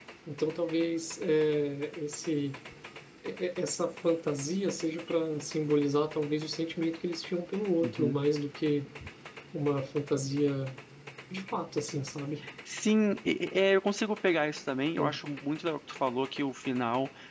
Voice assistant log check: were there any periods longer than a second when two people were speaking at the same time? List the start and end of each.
none

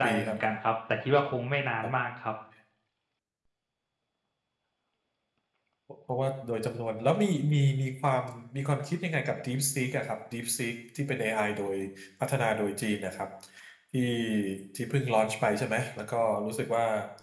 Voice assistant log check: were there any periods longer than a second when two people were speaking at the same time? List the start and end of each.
none

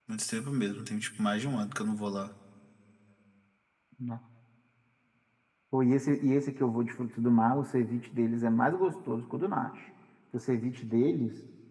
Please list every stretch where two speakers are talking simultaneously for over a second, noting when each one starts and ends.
none

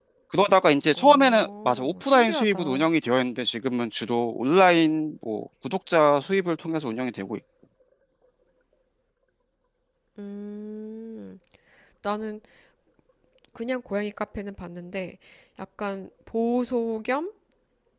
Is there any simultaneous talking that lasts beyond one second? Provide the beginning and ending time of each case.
0.9-2.9

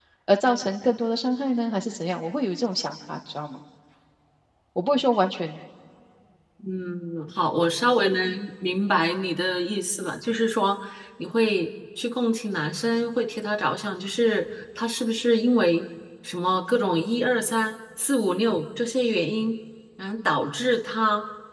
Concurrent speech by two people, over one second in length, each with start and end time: none

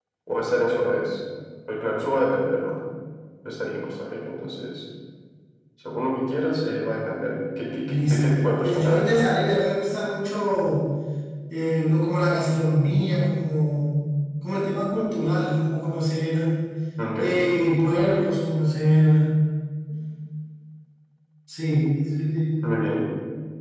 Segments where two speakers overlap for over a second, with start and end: 7.9-9.1

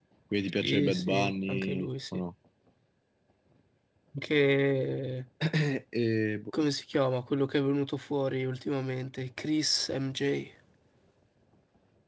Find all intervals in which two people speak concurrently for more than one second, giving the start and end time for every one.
0.6-2.2

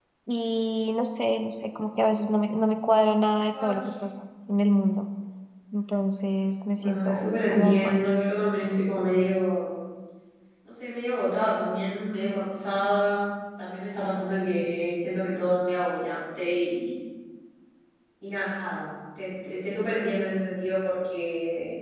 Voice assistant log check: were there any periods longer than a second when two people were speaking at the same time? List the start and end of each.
6.8-8.0

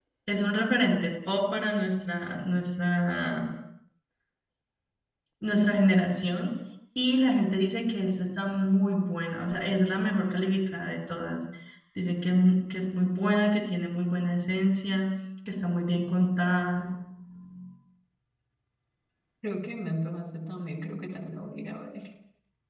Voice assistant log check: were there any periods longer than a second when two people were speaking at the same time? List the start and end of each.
none

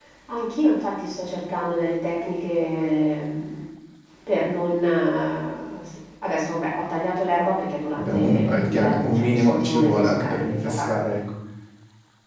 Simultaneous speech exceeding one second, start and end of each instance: 8.0-10.9

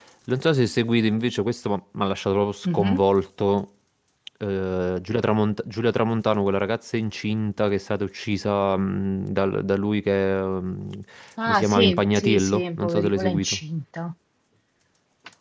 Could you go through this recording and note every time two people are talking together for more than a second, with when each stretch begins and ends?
11.5-13.6

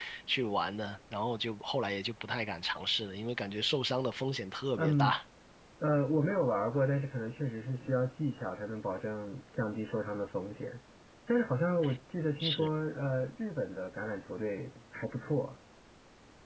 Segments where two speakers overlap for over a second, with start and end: none

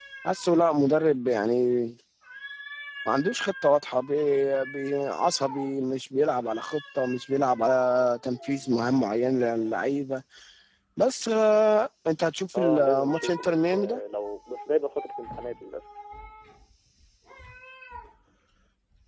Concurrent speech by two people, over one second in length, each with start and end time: 12.6-14.0

